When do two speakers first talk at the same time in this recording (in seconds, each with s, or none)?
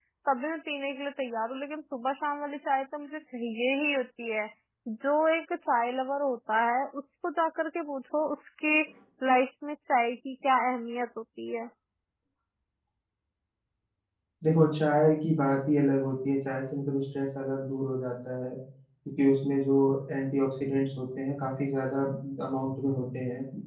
none